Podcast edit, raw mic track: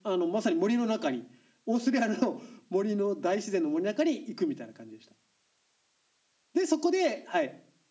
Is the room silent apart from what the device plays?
Yes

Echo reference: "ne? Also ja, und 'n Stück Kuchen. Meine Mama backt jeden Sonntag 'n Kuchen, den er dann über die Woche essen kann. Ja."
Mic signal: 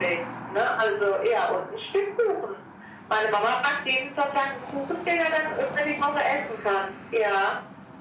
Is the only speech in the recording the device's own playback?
Yes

